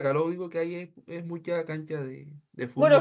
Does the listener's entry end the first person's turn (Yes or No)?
Yes